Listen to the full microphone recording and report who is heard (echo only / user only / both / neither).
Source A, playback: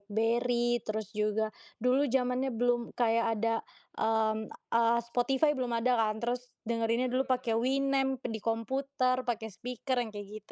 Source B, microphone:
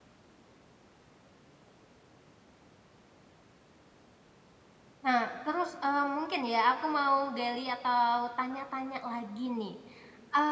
user only